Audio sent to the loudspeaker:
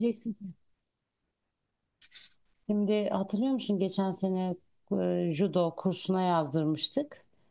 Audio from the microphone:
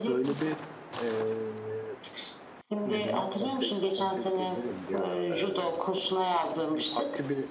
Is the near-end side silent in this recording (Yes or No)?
No